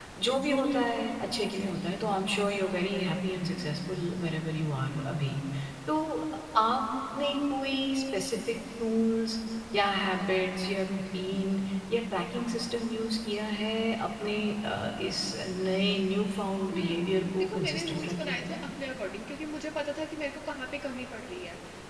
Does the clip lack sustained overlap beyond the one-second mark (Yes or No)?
No